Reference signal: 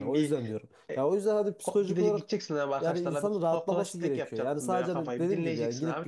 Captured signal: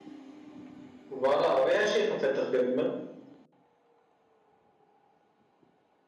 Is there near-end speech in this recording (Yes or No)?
Yes